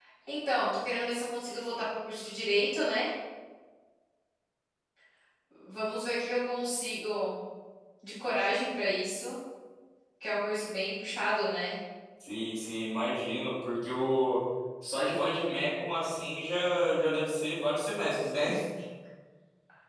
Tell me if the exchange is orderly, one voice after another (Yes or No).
Yes